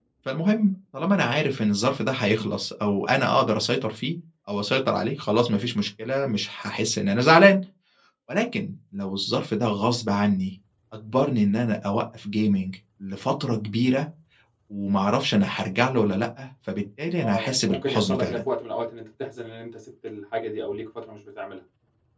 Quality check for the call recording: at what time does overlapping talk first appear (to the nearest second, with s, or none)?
17 s